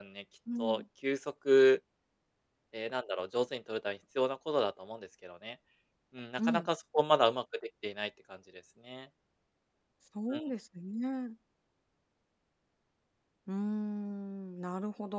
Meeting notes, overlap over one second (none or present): none